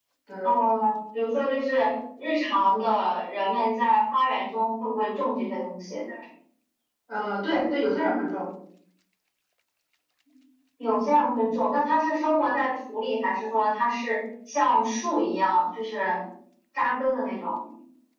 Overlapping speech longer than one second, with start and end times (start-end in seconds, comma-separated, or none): none